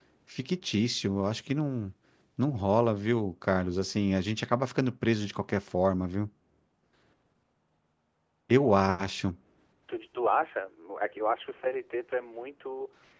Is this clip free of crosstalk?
Yes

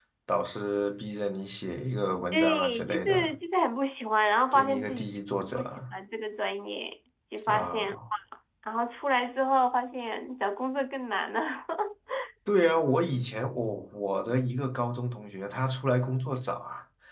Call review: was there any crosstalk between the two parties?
Yes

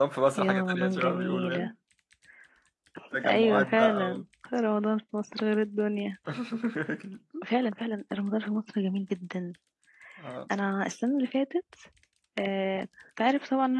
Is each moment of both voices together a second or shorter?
No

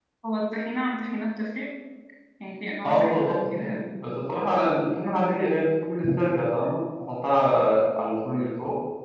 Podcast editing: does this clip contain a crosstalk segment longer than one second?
Yes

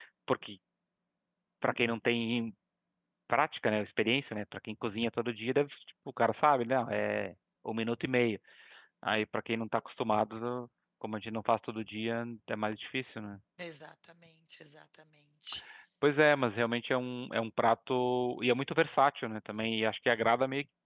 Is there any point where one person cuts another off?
No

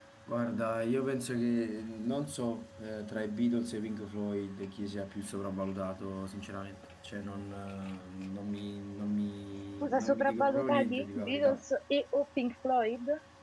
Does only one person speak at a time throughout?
No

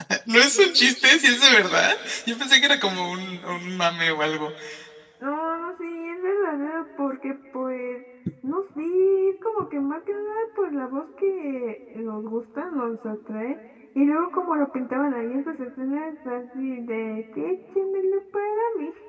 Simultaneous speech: No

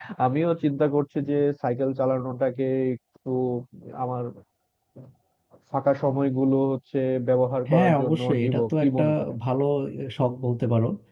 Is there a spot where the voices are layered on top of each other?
Yes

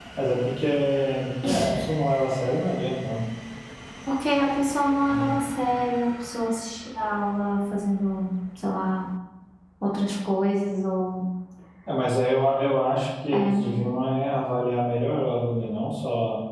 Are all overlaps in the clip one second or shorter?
Yes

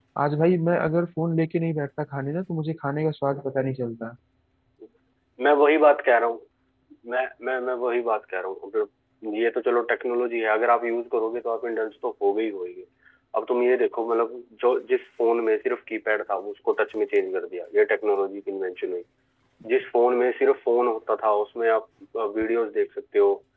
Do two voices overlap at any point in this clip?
No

